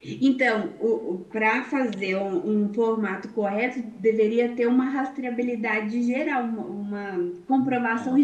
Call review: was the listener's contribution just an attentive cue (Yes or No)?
Yes